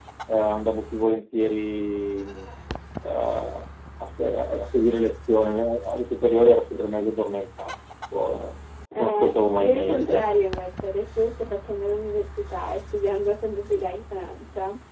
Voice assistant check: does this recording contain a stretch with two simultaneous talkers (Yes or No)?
Yes